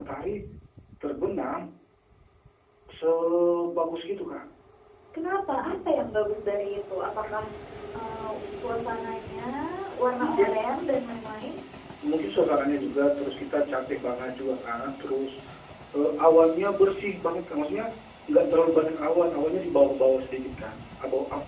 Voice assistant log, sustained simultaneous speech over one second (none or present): none